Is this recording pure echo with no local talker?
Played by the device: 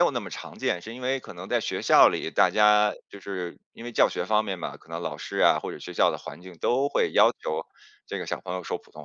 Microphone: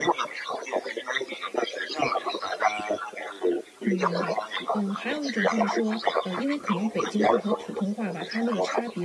No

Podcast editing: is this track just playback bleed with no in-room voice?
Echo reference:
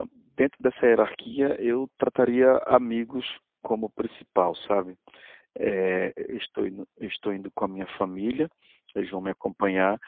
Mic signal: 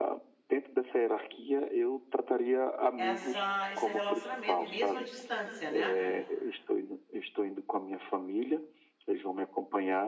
No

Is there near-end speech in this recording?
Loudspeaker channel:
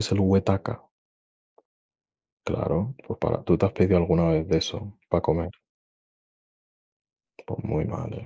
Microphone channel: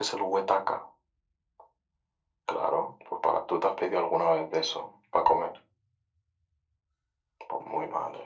No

